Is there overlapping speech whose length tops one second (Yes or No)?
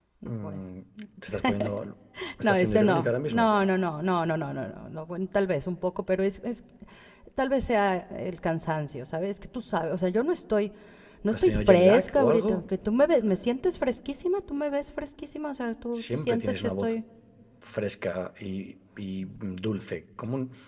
Yes